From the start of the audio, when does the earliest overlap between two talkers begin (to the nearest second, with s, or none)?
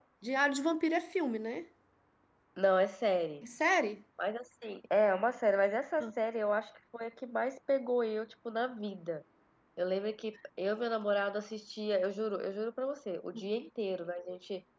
none